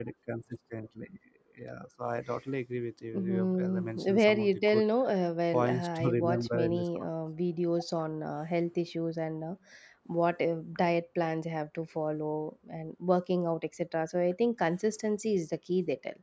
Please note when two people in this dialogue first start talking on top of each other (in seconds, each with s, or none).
3.1 s